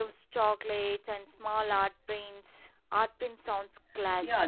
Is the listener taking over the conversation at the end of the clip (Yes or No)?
Yes